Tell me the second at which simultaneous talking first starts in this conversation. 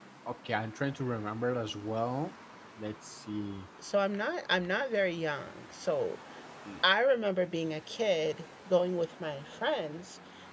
none

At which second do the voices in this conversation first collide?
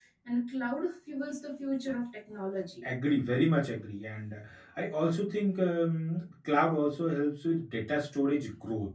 none

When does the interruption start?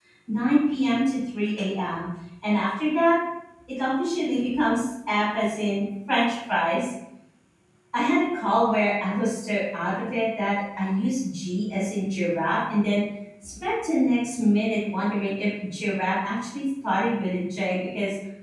none

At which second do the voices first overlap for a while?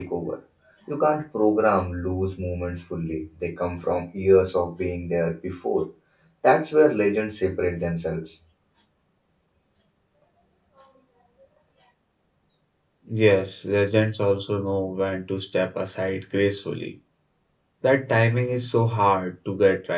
none

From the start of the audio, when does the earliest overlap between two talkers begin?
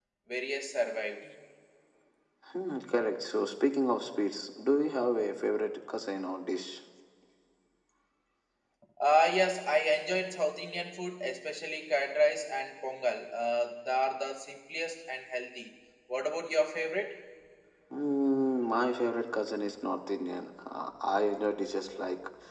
none

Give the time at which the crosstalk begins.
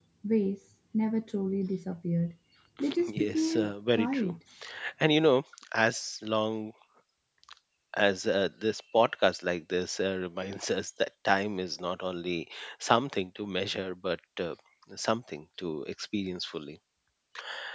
3.1 s

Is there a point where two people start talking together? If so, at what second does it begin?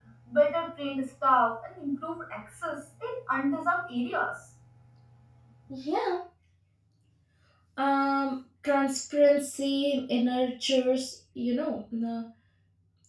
none

